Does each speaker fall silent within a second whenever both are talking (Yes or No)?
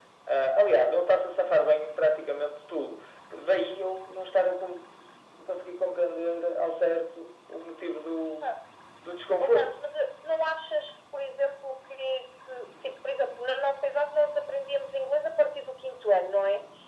Yes